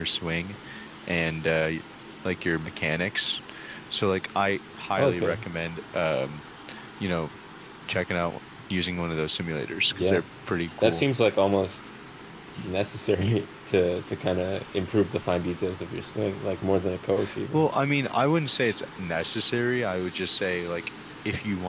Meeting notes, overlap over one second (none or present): none